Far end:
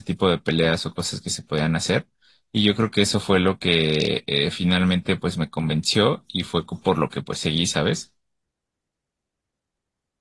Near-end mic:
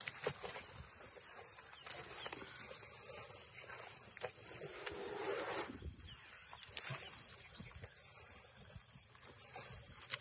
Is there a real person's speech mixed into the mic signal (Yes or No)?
No